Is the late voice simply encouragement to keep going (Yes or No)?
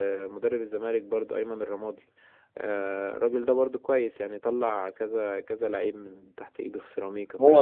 No